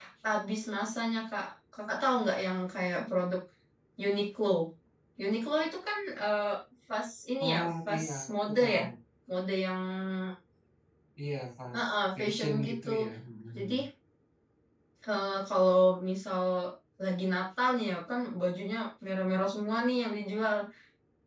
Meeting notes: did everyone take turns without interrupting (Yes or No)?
No